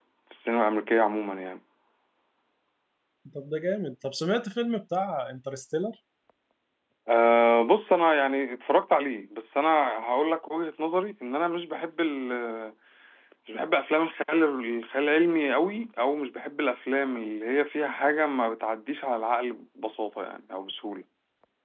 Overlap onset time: none

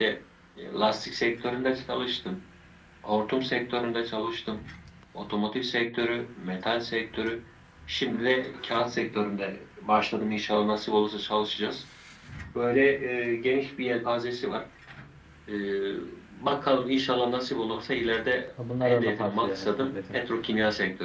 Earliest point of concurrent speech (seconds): 19 s

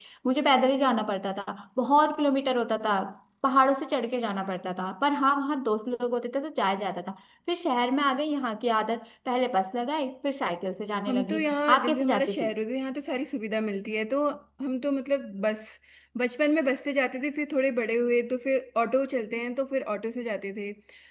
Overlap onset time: 11 s

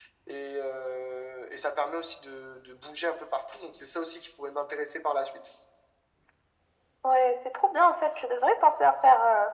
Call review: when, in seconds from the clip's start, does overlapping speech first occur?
none

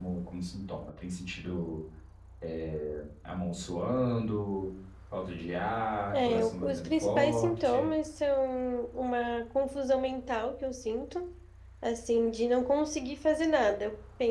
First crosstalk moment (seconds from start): 6 s

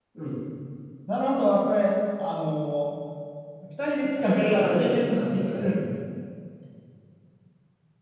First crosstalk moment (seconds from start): 4 s

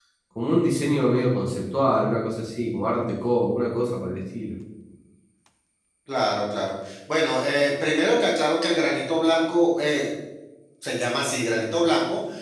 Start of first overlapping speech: none

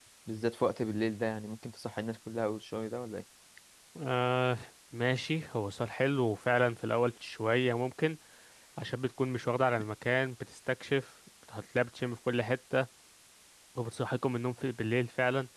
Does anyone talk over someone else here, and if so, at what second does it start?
none

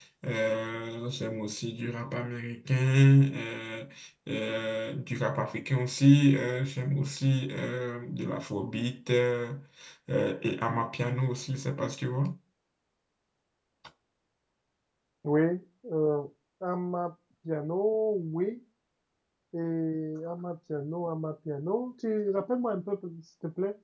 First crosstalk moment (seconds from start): none

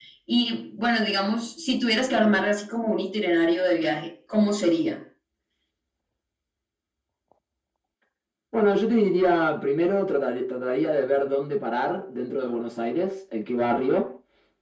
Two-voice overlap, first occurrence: none

